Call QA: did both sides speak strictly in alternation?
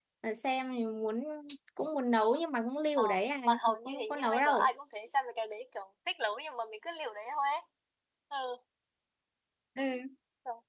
No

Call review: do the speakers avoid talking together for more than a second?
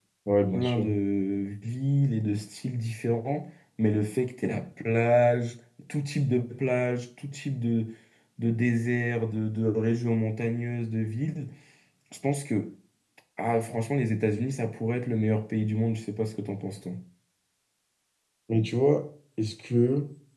Yes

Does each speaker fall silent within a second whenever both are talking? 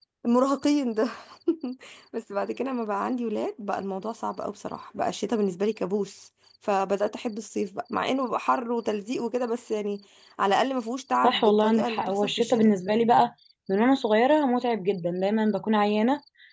No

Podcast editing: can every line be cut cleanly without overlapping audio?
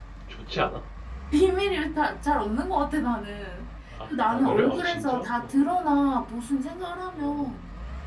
No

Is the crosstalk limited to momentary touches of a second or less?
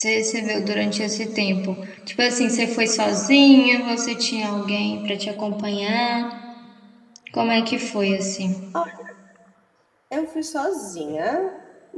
Yes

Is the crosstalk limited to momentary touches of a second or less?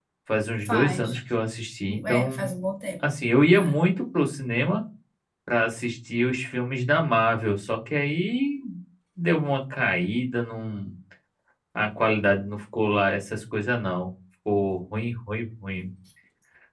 Yes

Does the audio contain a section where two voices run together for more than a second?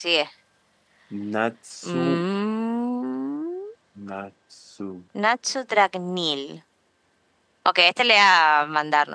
No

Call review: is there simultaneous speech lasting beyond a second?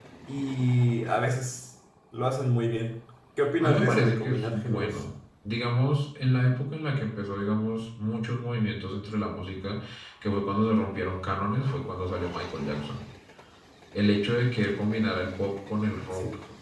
Yes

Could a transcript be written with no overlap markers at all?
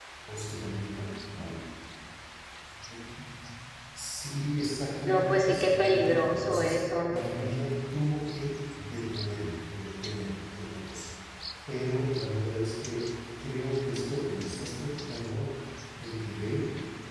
No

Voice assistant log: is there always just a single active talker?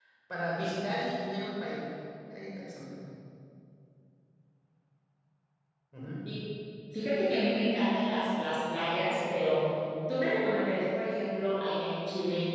Yes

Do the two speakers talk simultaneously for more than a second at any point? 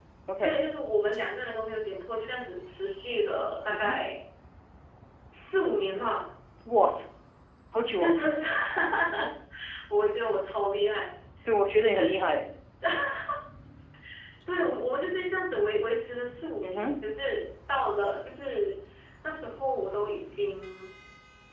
No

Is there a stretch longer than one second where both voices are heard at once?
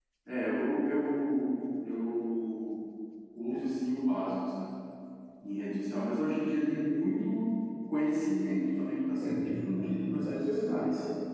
Yes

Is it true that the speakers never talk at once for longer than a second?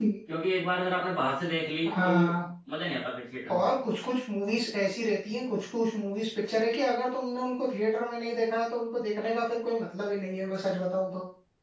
Yes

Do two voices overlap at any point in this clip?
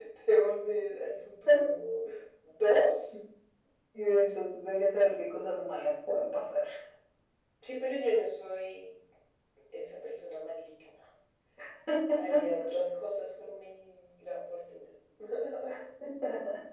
No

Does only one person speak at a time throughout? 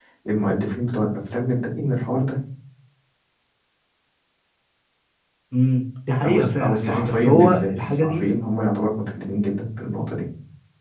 No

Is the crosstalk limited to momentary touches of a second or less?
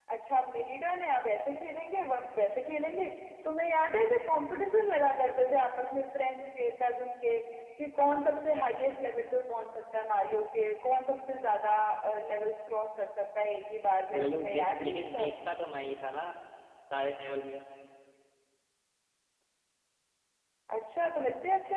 No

